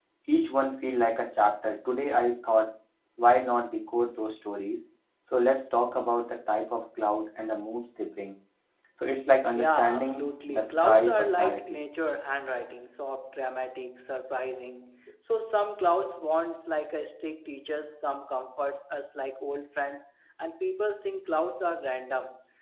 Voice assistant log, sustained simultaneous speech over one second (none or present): present